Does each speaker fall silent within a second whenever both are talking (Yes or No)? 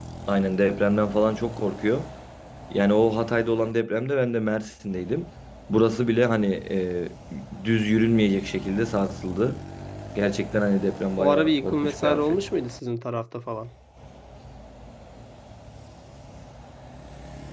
No